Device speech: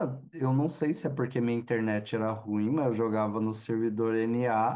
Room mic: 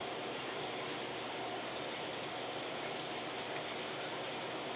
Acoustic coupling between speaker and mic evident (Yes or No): No